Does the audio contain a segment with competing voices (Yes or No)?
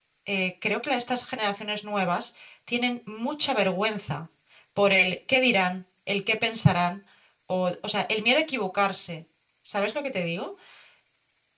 No